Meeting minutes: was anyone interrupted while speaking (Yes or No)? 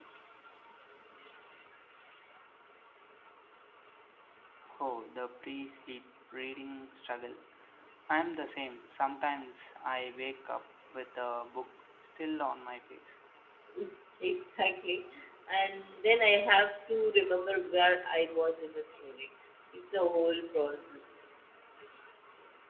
No